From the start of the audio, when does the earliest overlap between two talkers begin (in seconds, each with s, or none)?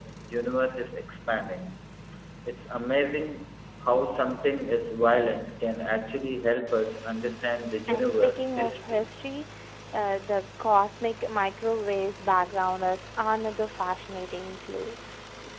7.9 s